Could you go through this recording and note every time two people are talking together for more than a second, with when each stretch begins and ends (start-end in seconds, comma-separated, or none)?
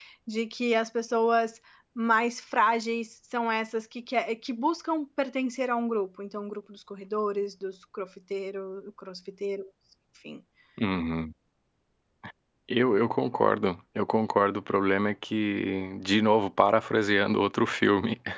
none